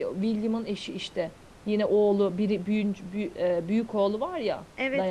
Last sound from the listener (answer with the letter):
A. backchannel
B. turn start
B